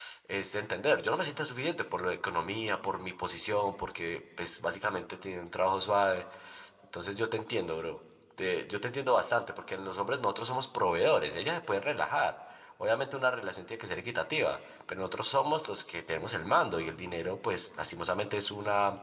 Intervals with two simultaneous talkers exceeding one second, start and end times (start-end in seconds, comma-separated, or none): none